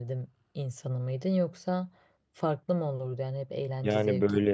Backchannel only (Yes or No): No